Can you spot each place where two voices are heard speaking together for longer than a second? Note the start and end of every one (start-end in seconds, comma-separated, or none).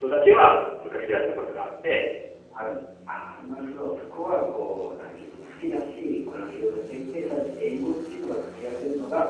none